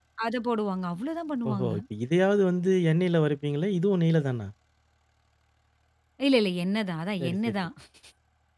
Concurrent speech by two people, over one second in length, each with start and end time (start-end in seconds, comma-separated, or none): none